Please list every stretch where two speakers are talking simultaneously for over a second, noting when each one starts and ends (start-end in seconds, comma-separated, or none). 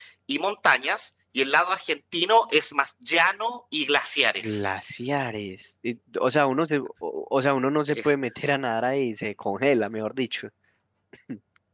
none